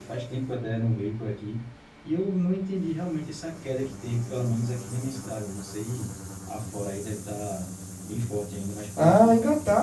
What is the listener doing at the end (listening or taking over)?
taking over